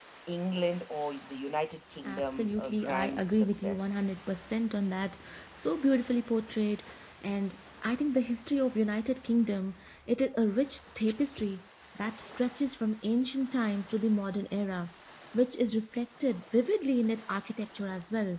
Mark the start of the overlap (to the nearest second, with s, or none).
2 s